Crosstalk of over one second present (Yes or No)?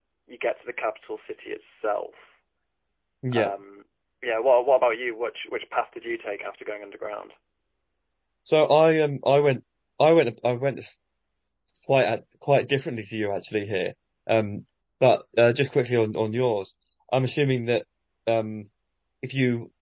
No